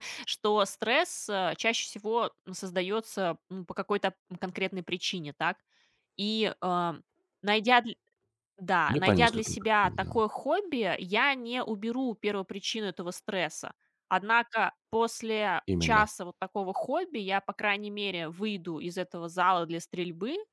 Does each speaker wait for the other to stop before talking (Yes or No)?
No